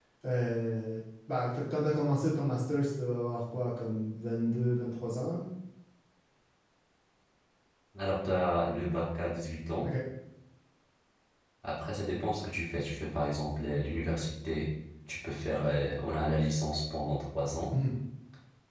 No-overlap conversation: Yes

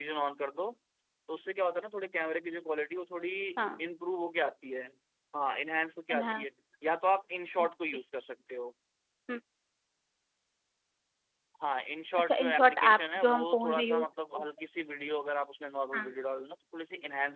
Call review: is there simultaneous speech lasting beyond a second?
Yes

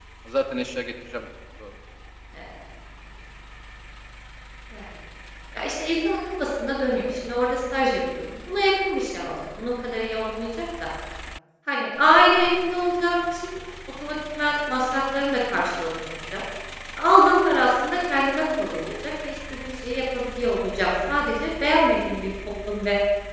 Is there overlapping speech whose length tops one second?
No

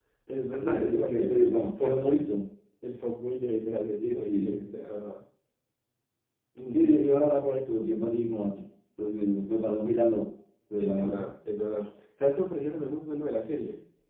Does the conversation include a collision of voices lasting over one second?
Yes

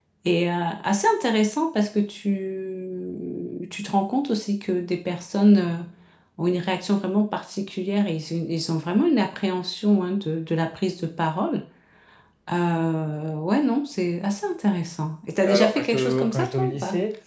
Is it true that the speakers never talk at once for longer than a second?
No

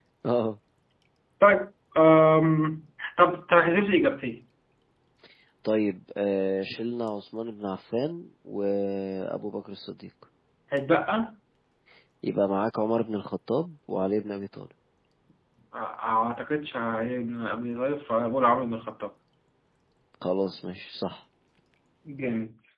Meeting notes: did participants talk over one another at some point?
No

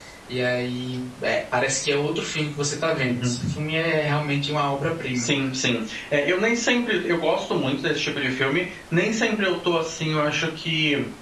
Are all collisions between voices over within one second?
Yes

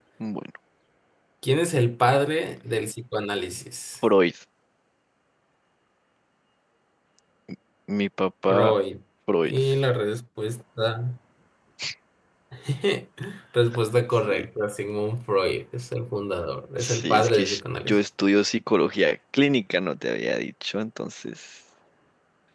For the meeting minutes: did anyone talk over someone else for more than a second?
Yes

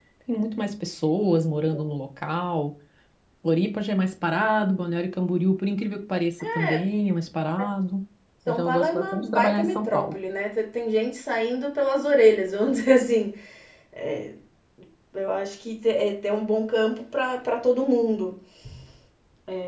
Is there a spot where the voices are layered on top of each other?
Yes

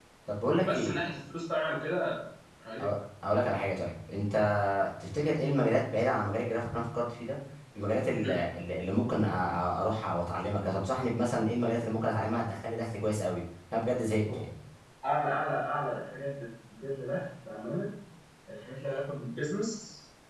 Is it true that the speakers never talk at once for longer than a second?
Yes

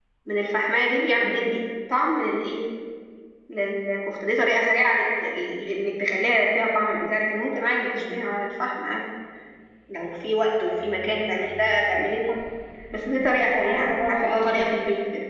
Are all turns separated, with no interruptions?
No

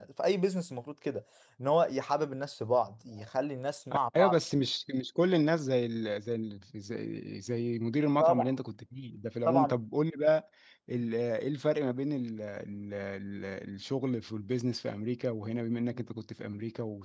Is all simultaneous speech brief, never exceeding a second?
Yes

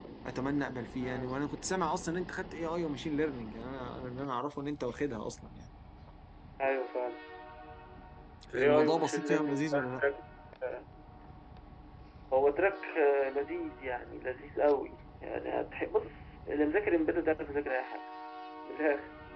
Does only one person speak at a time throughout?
No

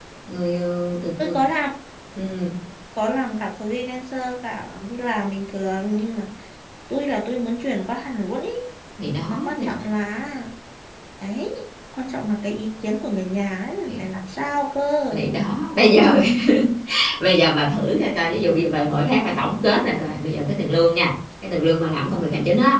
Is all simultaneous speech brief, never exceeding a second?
Yes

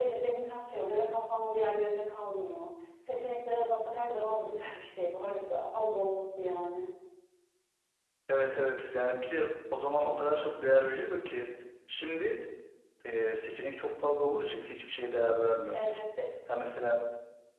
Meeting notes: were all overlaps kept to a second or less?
Yes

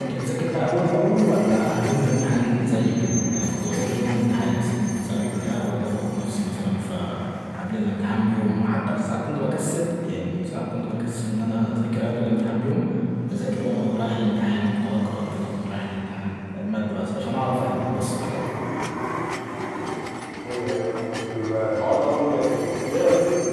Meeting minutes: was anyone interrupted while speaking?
No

